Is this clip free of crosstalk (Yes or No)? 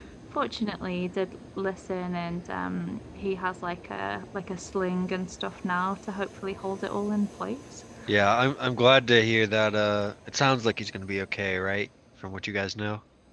Yes